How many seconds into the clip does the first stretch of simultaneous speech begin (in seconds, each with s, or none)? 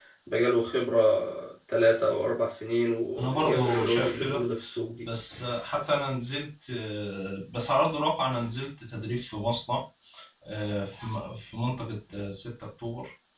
3.2 s